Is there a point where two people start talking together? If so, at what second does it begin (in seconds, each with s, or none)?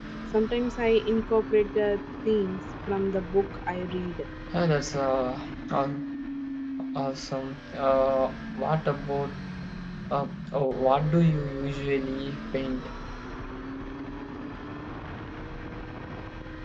none